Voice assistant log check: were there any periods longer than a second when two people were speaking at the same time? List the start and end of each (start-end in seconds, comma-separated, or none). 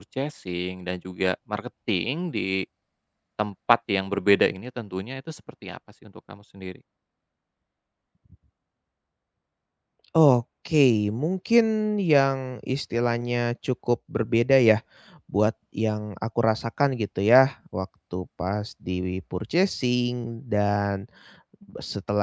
none